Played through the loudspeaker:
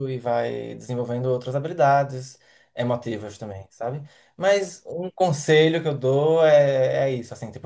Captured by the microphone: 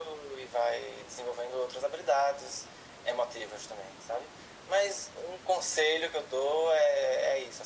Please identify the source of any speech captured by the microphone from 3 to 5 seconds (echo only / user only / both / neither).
echo only